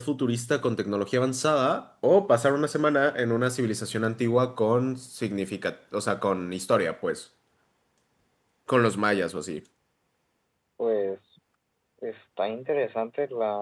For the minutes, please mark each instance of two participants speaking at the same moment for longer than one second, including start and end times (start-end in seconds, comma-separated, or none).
none